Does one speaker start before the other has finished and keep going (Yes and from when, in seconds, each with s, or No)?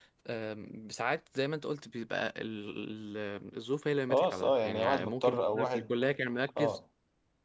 Yes, from 4.1 s